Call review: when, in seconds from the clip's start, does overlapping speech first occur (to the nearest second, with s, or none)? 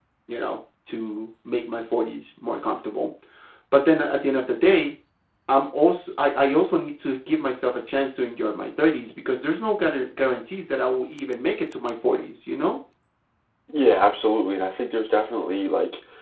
none